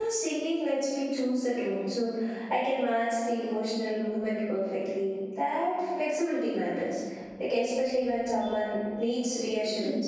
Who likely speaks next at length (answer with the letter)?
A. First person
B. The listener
B